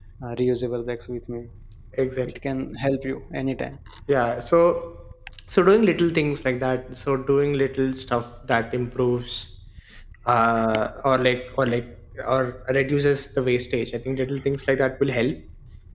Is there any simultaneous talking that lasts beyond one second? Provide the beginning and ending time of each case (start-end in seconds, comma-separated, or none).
none